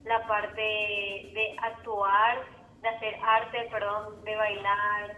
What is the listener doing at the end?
listening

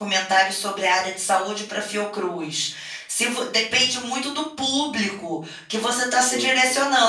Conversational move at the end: listening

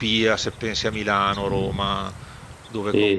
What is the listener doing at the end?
taking over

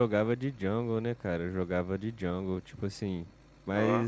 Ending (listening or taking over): listening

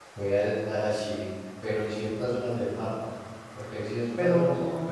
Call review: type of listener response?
listening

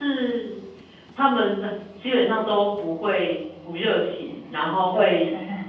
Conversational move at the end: listening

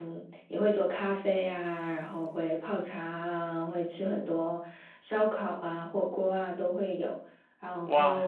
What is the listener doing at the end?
taking over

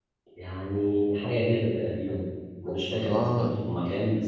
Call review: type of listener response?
listening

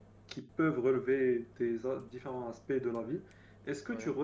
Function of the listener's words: listening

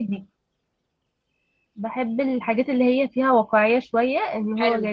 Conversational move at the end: taking over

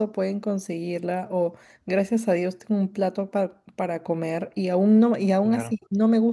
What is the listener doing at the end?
listening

